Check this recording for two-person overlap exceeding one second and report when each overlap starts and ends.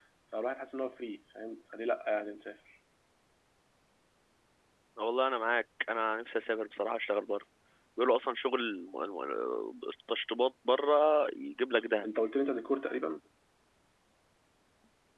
none

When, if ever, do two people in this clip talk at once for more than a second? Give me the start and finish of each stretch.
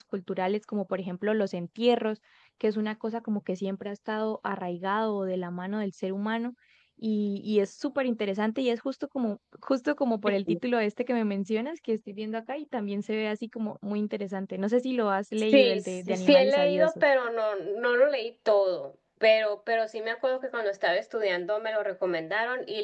15.5-17.0

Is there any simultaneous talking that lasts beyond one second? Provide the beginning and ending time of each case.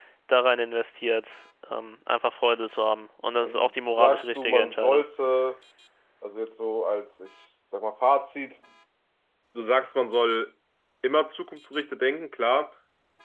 3.4-5.0

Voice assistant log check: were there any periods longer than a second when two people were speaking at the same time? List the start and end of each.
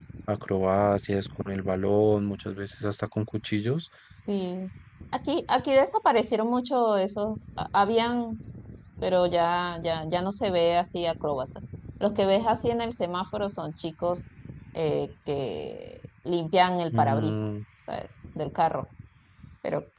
none

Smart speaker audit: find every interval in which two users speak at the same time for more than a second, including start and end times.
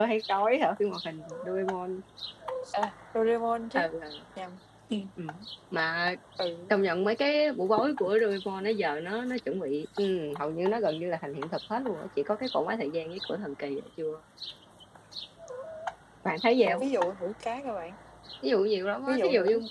none

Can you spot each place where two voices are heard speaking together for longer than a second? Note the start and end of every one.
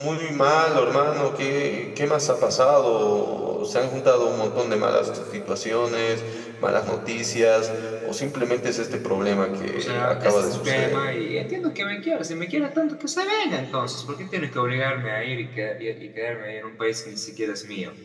9.7-11.0

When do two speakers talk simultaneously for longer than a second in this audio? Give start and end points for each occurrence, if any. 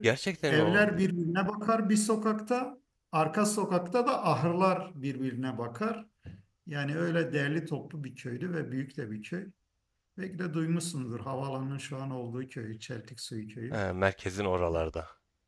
none

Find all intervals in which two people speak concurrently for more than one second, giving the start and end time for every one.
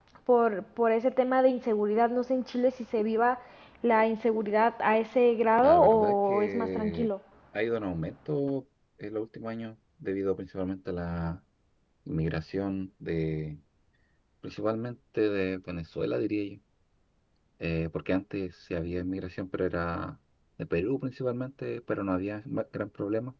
5.6-7.1

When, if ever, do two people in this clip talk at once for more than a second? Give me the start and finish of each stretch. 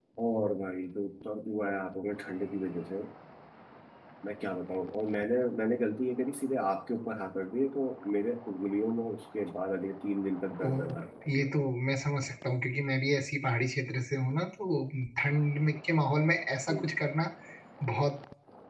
none

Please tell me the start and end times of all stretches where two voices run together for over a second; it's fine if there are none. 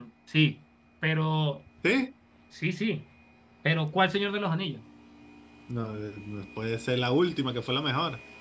none

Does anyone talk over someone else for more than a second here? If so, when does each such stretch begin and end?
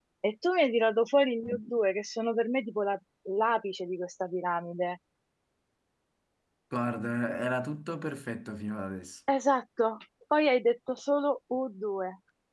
none

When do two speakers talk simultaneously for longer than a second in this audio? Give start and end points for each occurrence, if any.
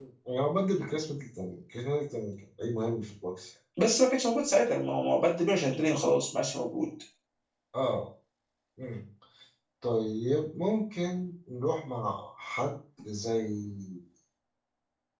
none

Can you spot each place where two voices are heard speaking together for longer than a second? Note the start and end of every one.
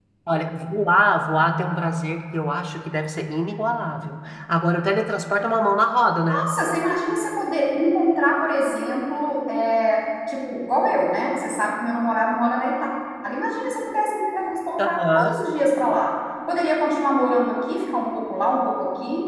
none

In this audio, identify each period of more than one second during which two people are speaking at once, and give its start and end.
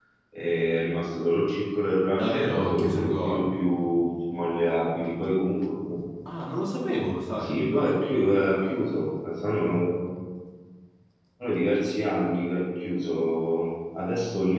2.1-3.4

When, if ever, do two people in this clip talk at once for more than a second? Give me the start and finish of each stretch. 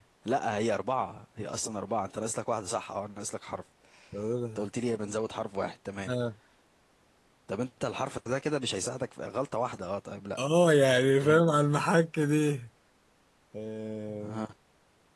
none

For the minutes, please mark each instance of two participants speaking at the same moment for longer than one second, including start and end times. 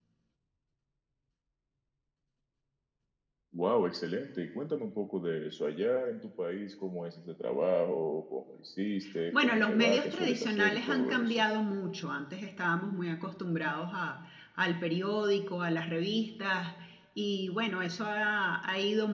9.4-11.4

